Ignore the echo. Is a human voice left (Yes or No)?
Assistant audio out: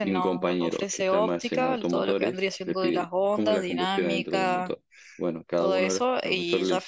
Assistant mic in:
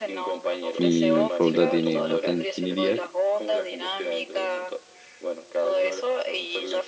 Yes